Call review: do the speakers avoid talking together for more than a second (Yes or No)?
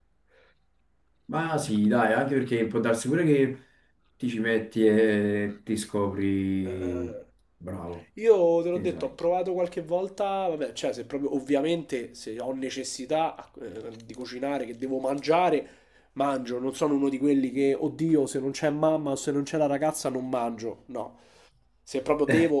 Yes